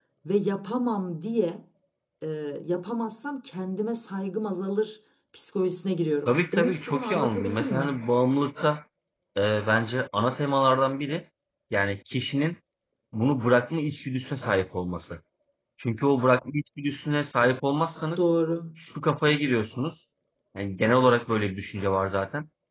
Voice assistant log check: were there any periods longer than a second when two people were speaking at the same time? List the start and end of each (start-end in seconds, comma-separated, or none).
6.2-8.0